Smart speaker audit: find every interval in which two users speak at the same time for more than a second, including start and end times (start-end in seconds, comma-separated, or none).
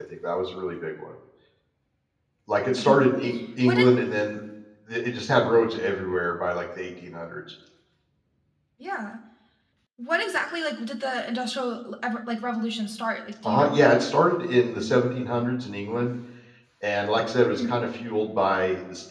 none